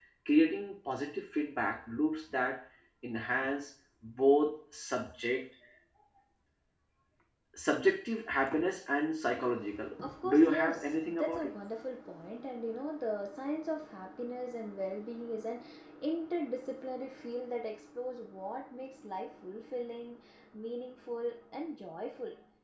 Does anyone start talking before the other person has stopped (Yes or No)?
Yes